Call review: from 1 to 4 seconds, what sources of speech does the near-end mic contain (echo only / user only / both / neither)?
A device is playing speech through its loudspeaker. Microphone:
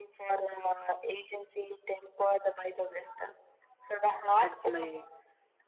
echo only